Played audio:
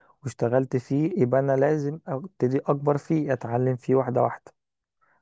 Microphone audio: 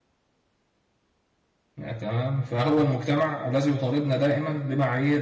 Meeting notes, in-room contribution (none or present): present